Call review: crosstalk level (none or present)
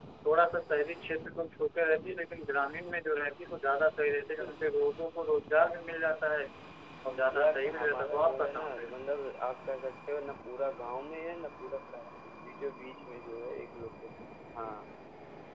present